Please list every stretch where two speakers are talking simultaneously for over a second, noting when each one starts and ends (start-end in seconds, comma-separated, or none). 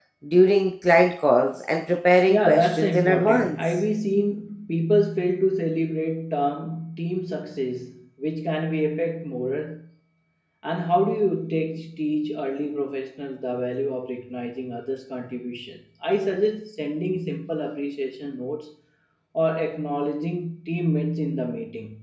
2.3-3.8